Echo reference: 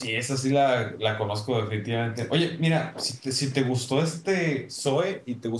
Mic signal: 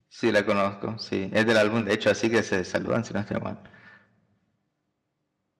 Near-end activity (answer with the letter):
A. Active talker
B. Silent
A